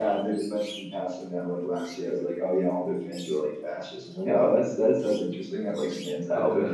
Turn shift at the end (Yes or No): No